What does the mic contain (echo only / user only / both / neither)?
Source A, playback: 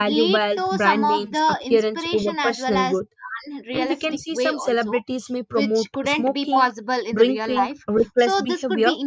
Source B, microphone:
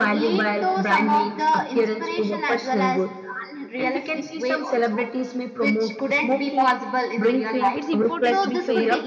both